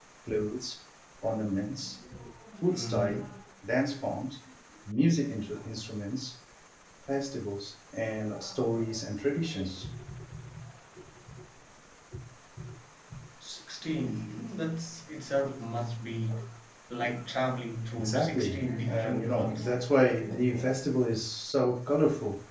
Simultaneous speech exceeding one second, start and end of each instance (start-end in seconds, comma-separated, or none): 18.0-19.7